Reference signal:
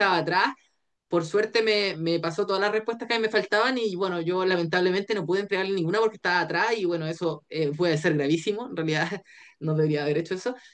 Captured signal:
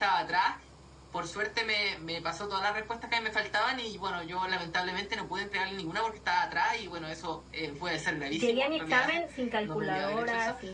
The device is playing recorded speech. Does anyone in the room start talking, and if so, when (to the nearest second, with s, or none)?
8 s